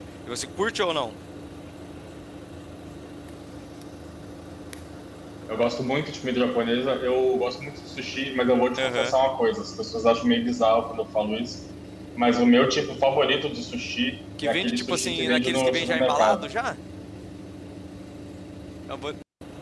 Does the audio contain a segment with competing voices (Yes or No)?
Yes